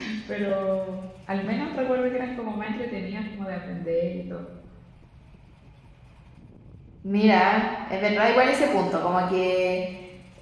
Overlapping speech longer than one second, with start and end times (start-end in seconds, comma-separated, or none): none